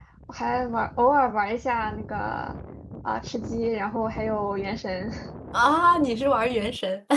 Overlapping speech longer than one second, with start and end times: none

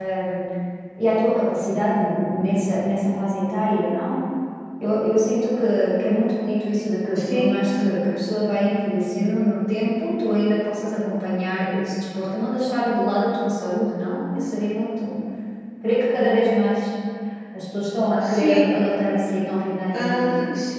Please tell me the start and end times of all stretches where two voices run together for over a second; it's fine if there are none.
none

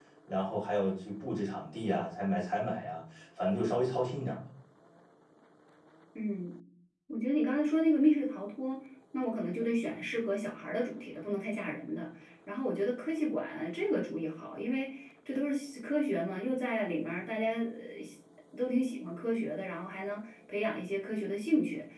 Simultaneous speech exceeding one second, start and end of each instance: none

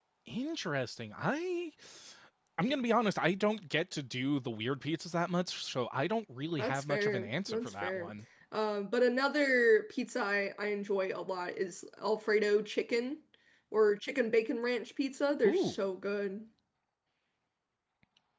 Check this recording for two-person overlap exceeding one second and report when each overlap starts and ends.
6.6-8.1

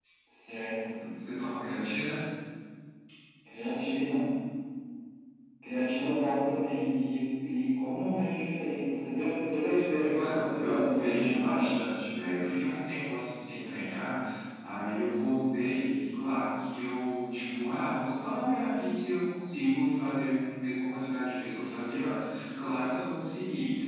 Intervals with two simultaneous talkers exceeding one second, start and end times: 10.0-11.7

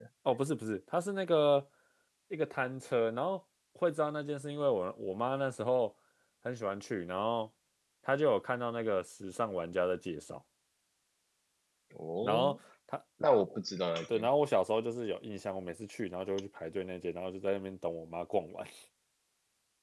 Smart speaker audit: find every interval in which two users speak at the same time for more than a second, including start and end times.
none

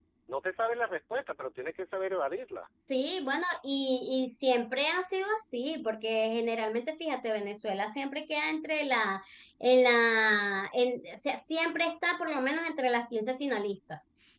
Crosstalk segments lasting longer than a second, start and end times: none

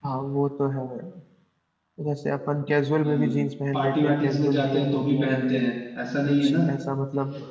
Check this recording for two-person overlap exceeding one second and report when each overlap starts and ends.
3.7-5.7

